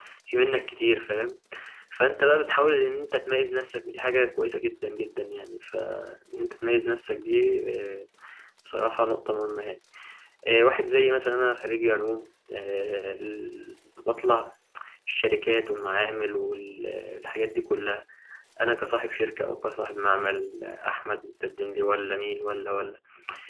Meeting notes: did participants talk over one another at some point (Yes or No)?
No